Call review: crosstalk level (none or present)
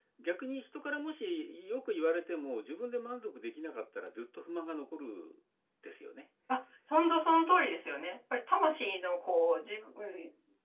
none